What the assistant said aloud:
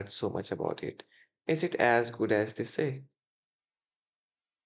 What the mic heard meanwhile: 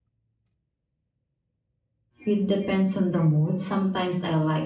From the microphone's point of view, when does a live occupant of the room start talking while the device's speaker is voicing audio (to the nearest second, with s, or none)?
2 s